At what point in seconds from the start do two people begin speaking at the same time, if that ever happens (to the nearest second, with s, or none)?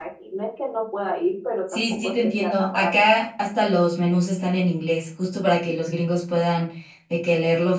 2 s